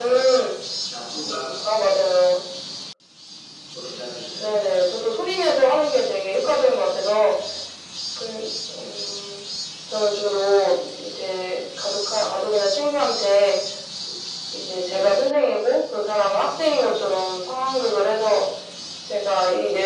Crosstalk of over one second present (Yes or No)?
No